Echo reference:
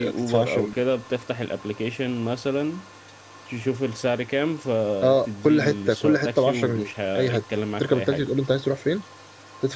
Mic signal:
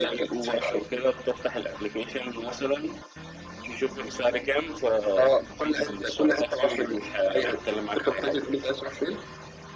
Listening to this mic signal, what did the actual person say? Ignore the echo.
none

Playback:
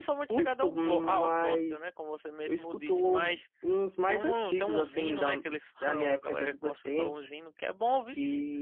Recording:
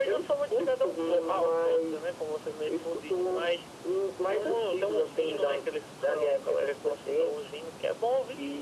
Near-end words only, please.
none

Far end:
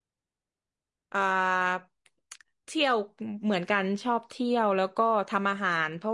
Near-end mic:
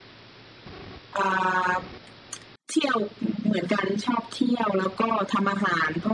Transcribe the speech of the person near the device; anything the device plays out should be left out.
none

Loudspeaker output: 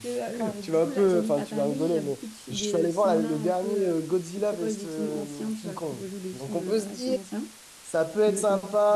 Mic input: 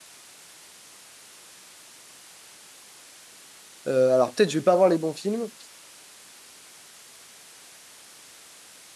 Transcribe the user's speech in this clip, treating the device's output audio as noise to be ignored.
Euh, alors, peut-être, je vais pas voir les bons films,

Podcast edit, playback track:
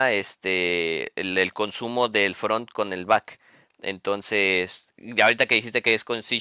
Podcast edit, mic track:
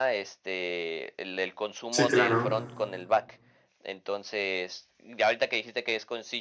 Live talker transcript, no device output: sí, claro.

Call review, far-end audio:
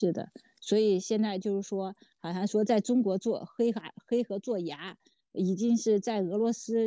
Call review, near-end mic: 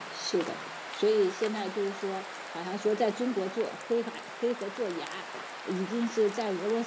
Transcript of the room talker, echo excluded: none

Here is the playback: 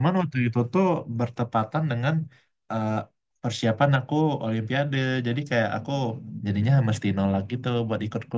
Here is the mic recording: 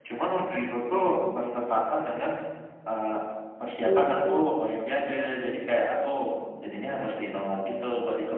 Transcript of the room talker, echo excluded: hmm.

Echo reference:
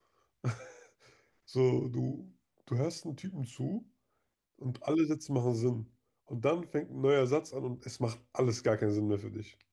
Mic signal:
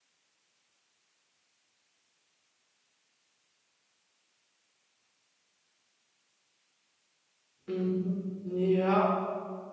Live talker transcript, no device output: Mhm. Ja,

